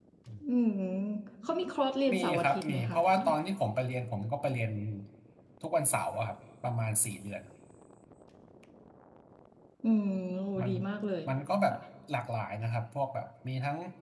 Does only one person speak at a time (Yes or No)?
No